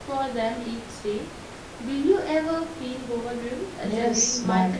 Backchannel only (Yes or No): No